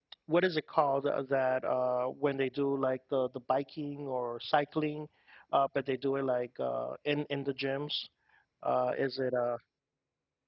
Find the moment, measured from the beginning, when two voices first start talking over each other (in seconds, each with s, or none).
none